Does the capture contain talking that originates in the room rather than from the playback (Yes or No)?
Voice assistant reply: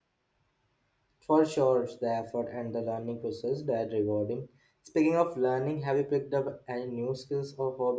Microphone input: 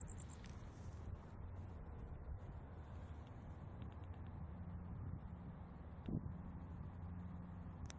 No